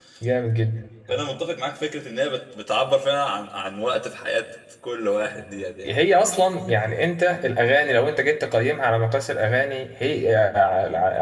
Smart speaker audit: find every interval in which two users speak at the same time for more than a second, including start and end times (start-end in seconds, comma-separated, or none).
none